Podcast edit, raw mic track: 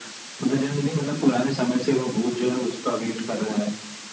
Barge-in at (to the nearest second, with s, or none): none